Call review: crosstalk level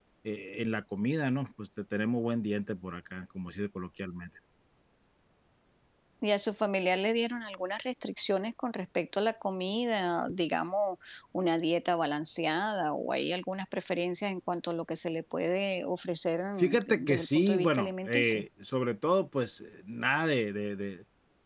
present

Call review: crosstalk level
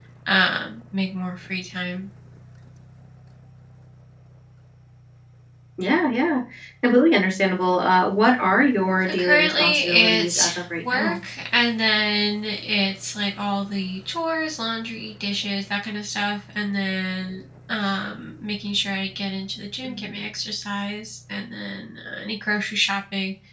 present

